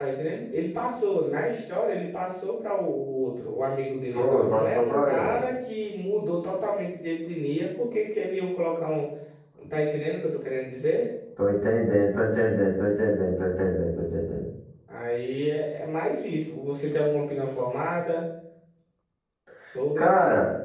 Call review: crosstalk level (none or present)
present